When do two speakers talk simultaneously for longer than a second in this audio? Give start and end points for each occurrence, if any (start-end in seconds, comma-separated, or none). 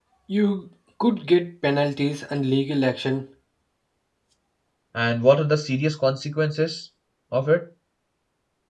none